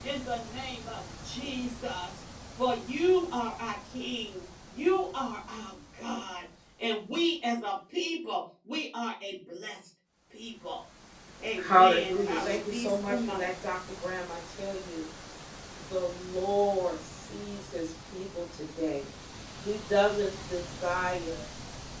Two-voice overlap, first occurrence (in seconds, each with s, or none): 11.6 s